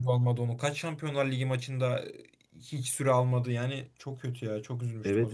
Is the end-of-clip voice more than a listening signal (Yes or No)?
Yes